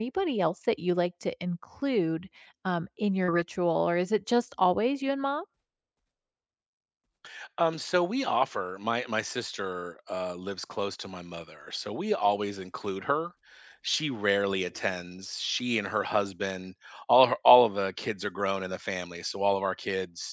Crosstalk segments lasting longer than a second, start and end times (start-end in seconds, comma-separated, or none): none